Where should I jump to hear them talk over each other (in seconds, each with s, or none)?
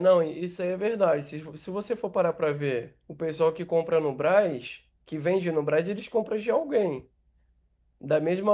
none